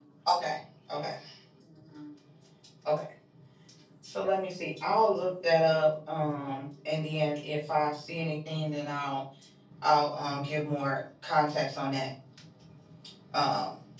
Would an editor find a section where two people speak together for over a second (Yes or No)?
No